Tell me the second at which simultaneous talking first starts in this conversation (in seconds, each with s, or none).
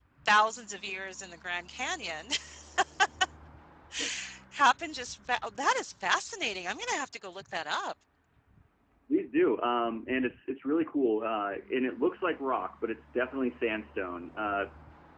none